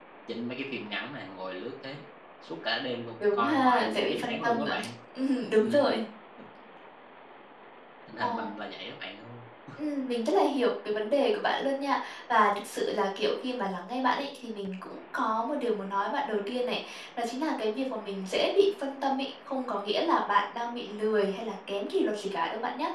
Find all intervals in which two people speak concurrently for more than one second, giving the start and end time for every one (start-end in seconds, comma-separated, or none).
3.2-4.7